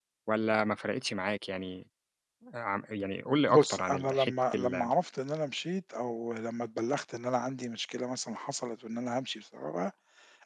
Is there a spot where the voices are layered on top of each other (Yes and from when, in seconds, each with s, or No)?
Yes, from 3.5 s